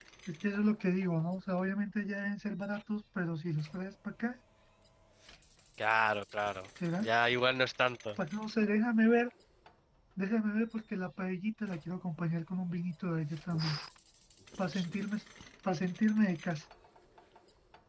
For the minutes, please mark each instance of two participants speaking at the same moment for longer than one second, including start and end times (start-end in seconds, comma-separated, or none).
none